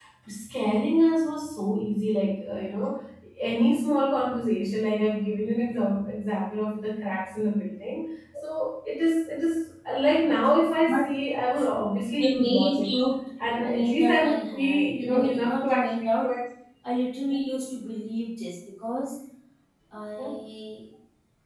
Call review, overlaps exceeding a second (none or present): present